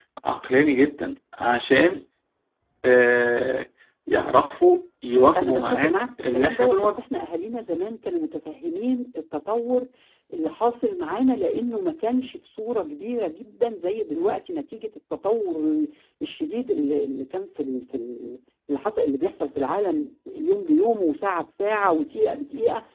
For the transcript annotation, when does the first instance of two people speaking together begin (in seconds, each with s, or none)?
5.3 s